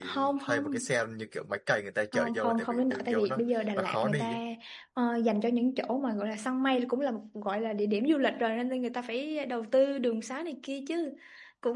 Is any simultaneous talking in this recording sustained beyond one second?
Yes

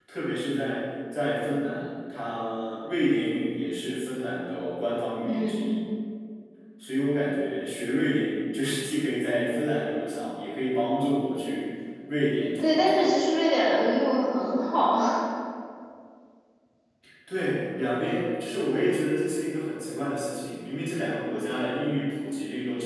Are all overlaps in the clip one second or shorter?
Yes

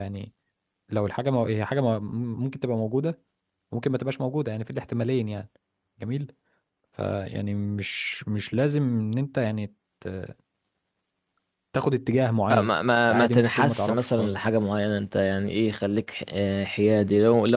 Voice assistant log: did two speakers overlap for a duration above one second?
Yes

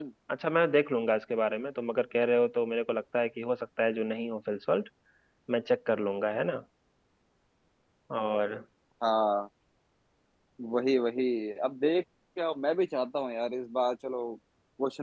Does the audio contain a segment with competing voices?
No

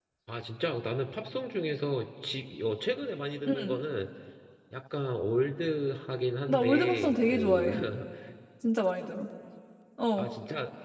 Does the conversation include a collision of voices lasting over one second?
Yes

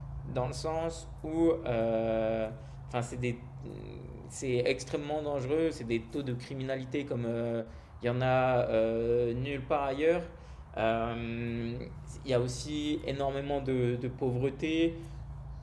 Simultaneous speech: No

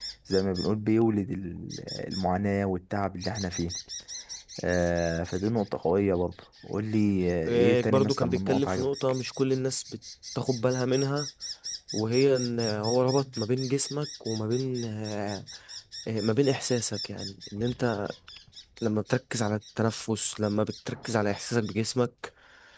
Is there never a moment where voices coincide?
No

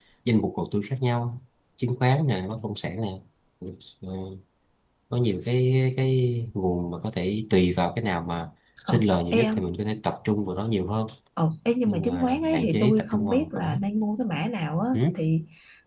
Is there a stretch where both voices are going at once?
Yes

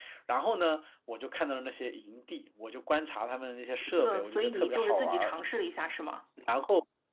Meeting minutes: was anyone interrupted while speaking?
Yes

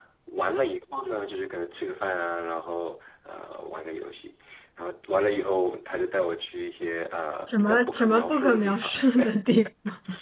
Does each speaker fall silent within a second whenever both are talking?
No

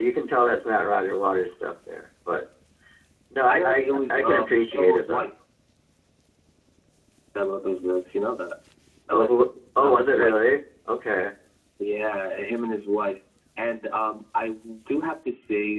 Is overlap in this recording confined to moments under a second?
No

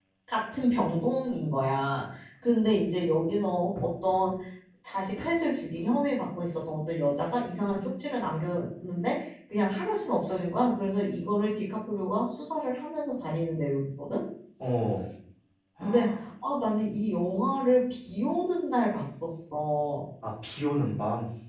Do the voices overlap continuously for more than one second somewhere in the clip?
No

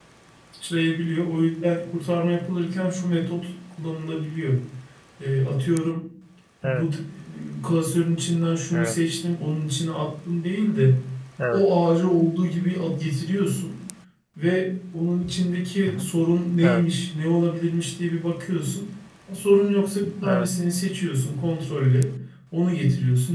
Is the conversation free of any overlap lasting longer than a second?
Yes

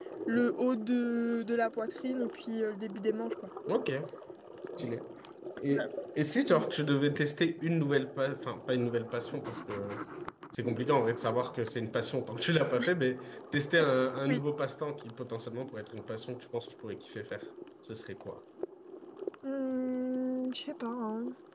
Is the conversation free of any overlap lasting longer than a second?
Yes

